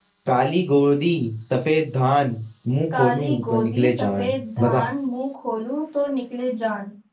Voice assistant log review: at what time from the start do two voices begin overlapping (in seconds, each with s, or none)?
2.9 s